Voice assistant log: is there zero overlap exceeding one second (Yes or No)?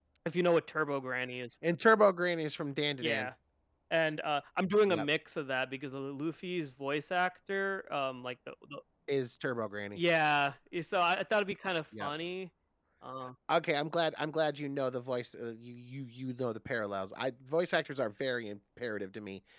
Yes